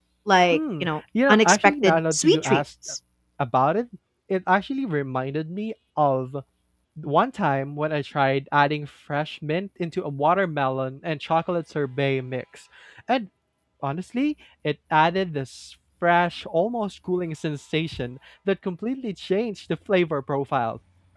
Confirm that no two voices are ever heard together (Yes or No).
No